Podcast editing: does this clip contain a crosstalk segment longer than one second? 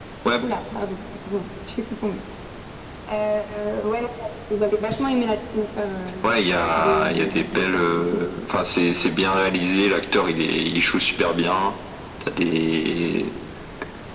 Yes, from 6.8 s

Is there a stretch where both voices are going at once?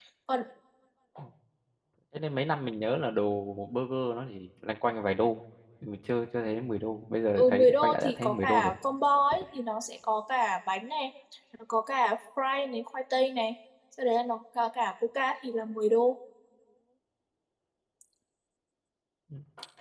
Yes, from 7.4 s

